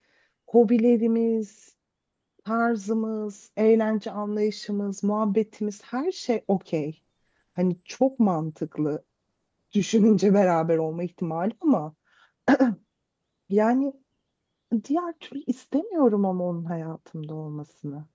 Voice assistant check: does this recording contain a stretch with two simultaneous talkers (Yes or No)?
No